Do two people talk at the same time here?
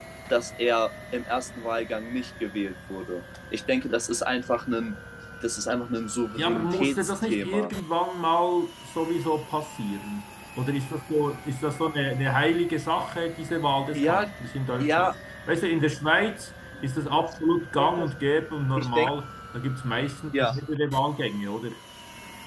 Yes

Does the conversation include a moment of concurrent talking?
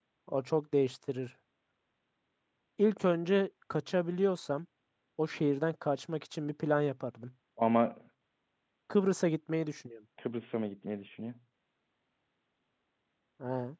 No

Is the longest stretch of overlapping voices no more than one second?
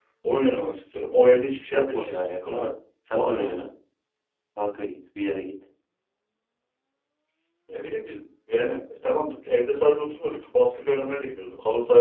No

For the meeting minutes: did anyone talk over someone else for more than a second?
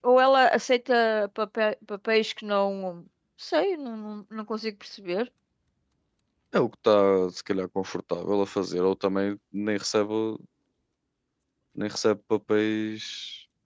No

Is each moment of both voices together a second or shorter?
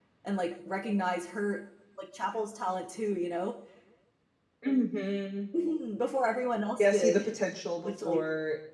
Yes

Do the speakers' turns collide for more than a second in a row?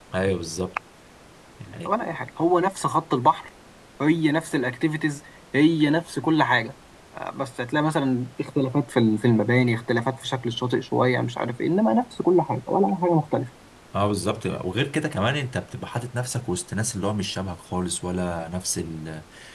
No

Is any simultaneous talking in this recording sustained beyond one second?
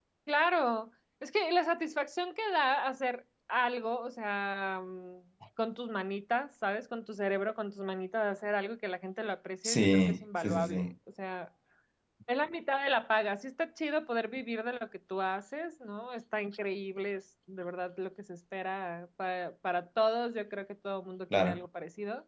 Yes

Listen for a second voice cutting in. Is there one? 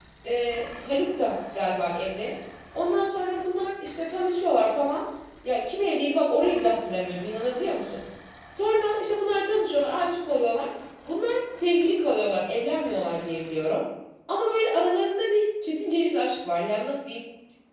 No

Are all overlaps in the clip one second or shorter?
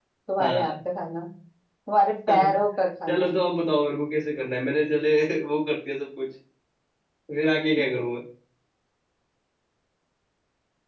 Yes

